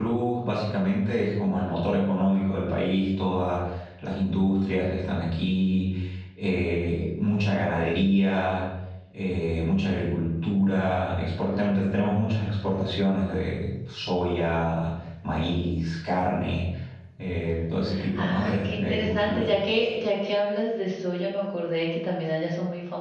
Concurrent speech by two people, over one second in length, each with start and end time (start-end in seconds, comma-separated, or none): 18.1-19.5